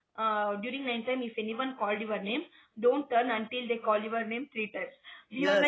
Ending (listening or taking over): listening